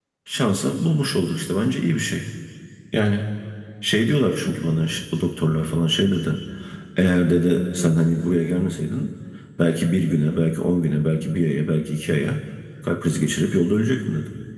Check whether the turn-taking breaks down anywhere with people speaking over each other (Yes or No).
No